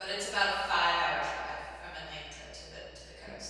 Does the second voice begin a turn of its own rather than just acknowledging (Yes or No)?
Yes